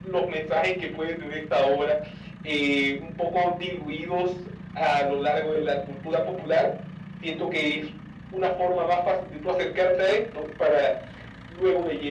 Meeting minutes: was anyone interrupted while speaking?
No

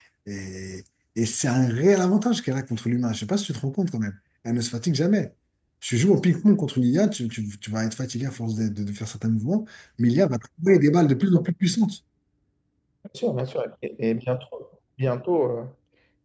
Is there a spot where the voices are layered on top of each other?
No

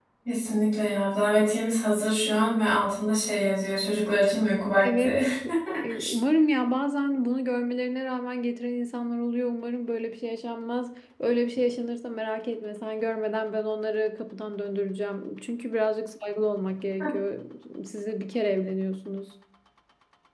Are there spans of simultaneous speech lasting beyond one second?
No

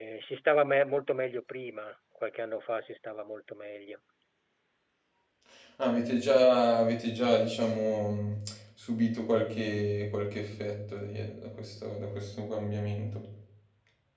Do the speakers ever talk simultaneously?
No

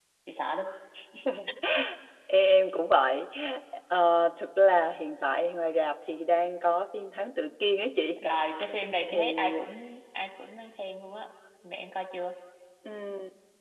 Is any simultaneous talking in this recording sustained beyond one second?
No

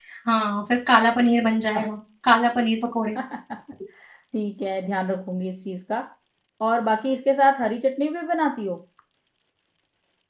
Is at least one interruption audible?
No

